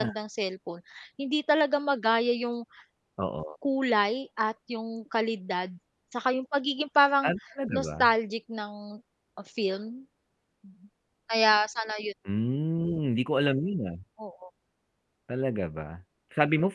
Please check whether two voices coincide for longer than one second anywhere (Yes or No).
No